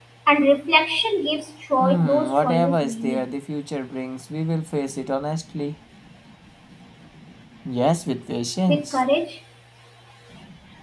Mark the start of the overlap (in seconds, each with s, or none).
1.8 s